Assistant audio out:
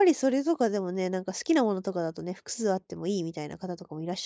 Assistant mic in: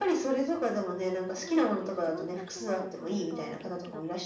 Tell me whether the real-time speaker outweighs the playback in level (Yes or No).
No